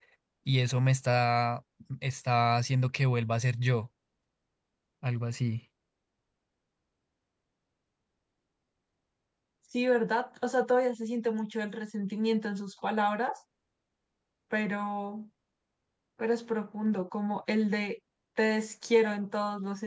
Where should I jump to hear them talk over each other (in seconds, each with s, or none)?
none